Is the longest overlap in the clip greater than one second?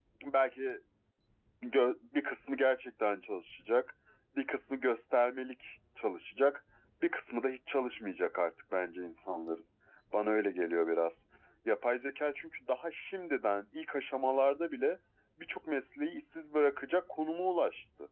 No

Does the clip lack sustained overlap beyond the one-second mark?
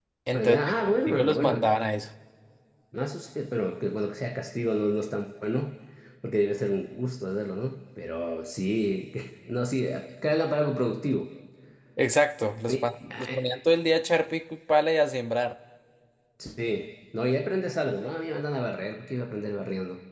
No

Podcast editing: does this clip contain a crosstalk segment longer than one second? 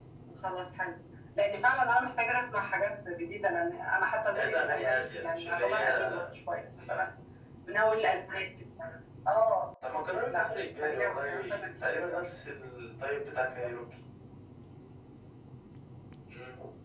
Yes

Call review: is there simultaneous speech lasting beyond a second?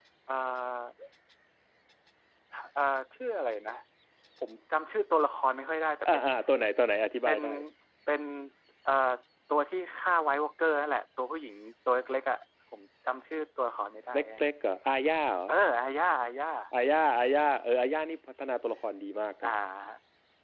No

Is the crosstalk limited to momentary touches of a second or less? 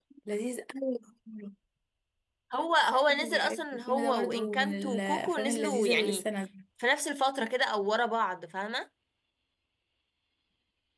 No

